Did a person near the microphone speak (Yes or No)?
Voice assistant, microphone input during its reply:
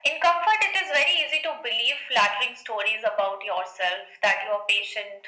No